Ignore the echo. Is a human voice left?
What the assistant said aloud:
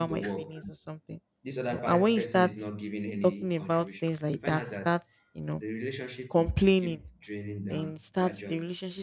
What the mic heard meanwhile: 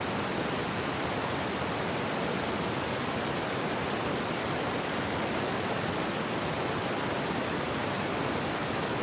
No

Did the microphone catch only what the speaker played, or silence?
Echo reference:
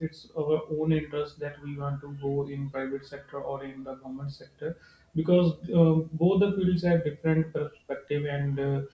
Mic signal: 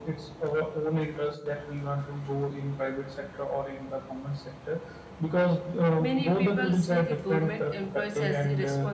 No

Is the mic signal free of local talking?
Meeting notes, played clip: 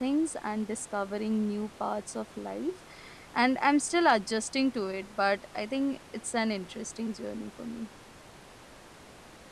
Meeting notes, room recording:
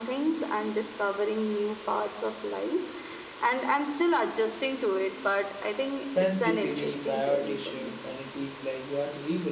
No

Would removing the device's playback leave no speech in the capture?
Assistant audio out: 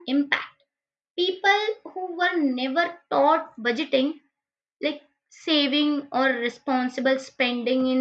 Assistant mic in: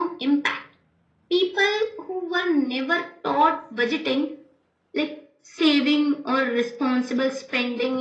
Yes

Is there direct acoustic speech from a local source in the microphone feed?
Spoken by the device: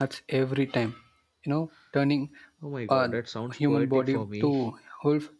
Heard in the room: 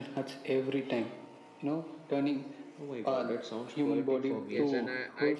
Yes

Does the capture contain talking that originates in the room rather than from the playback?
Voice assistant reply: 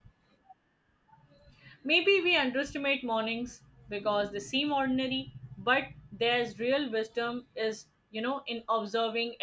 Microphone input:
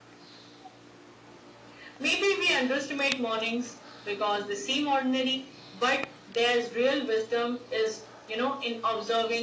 No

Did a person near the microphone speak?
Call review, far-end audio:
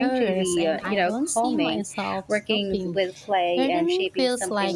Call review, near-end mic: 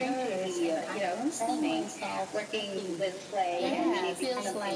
Yes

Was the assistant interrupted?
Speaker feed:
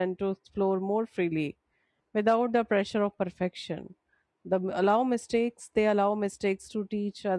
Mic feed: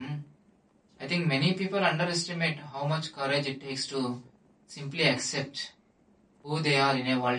Yes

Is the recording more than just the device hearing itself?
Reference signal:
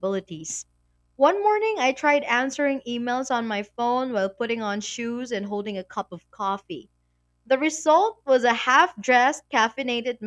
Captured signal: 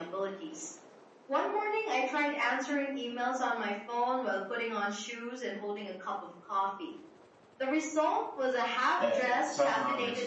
Yes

